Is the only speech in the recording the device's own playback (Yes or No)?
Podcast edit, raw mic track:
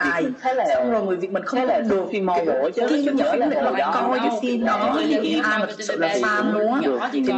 No